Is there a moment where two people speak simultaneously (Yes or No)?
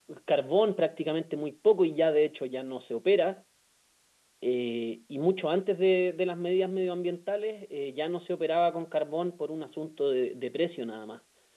No